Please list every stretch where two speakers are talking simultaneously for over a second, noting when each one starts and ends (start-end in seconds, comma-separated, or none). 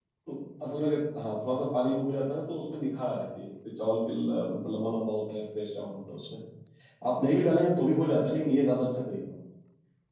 none